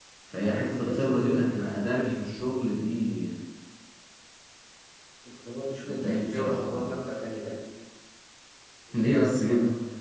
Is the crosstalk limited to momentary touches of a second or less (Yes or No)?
No